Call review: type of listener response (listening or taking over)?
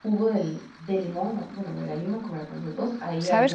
taking over